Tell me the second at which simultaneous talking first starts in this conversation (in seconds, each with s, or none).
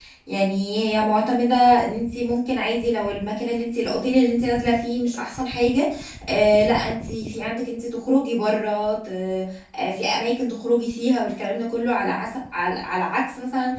none